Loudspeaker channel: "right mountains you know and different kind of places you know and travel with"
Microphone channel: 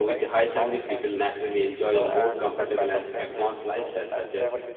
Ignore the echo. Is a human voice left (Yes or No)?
Yes